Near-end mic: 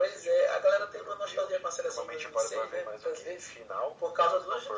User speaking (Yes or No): No